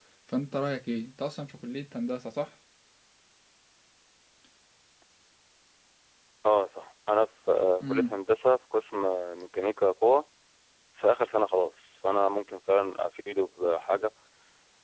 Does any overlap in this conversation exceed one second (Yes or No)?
No